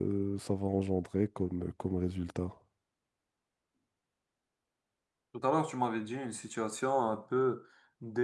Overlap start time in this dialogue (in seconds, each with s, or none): none